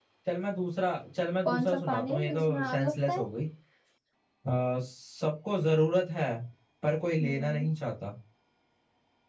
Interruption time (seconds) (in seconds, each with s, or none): 1.4 s